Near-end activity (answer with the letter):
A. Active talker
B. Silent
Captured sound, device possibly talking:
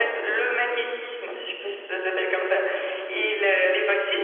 B